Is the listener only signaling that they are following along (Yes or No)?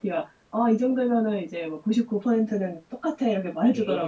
No